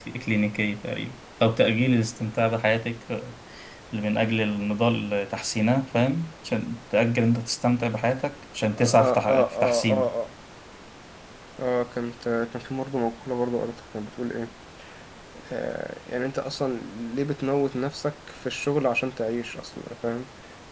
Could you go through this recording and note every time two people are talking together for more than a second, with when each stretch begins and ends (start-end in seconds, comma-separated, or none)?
8.8-10.1